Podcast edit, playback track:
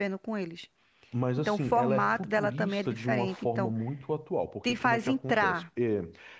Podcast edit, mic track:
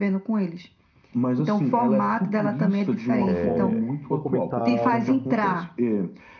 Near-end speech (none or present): present